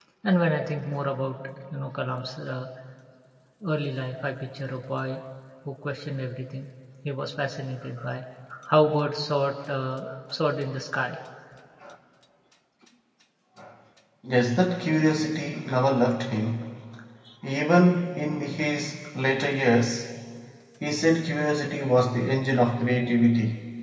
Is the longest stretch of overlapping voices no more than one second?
Yes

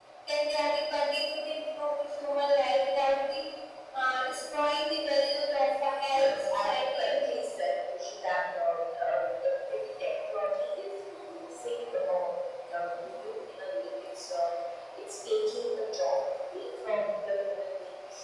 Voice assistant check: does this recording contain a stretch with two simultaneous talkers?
Yes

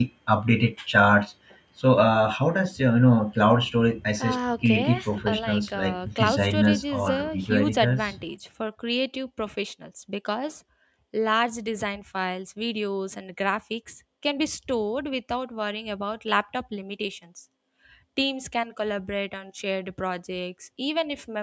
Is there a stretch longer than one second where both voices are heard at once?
Yes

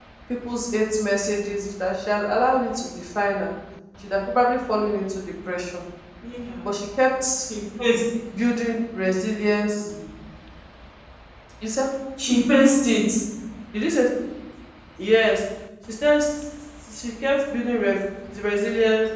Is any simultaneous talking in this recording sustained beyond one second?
No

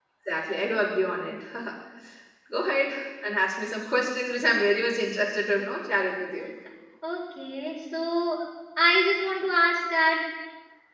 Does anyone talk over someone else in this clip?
No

